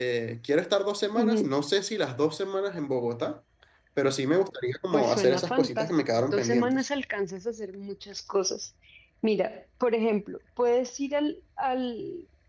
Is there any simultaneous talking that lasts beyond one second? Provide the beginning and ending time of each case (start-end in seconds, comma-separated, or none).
4.9-6.9